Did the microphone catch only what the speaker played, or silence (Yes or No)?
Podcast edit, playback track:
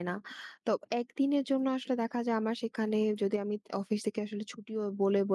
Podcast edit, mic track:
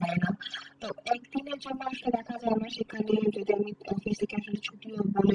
Yes